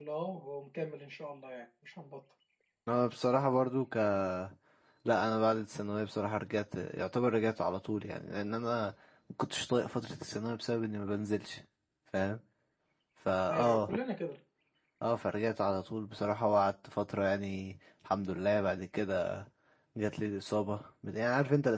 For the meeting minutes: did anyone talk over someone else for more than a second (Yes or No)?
No